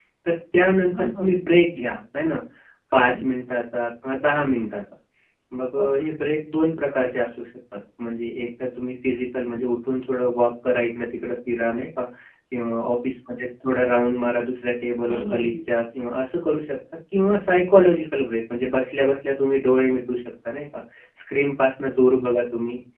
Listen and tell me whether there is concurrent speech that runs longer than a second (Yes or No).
No